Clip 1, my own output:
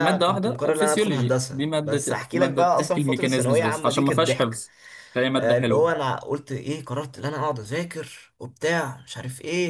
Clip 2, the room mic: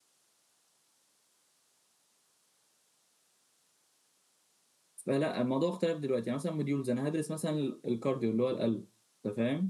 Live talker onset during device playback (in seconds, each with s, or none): 5.1 s